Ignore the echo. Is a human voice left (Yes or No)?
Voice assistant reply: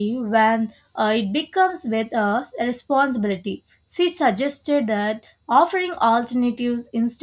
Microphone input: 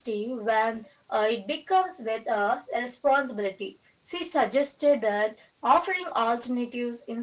No